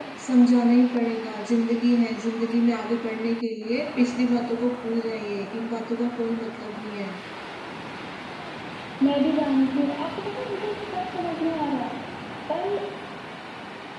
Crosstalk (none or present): none